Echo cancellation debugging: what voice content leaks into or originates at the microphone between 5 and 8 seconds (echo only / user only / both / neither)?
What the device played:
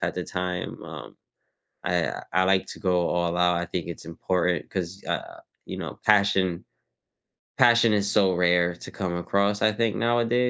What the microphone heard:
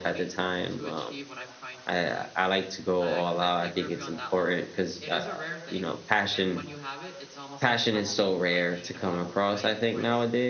both